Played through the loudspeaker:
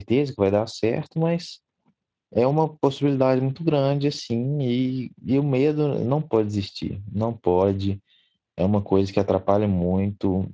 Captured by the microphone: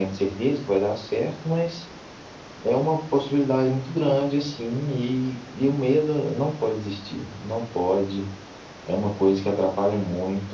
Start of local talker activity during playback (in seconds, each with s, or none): none